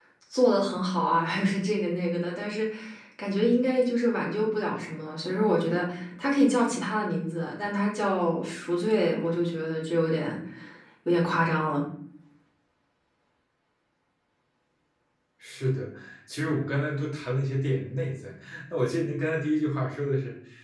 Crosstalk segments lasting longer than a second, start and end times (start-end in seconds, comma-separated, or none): none